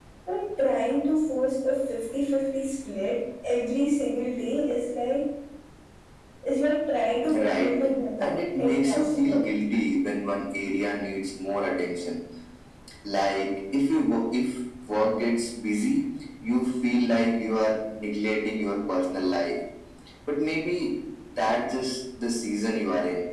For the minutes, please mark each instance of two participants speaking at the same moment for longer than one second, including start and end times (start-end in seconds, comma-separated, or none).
8.2-9.5